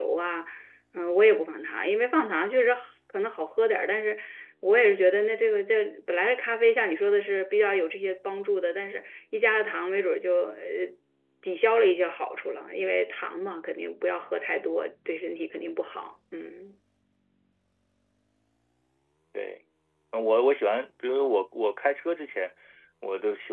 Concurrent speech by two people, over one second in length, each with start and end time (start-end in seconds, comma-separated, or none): none